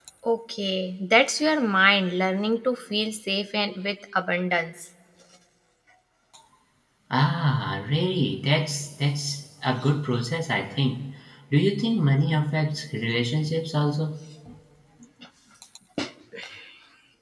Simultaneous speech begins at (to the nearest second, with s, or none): none